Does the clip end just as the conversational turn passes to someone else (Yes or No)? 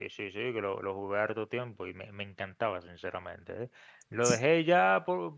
No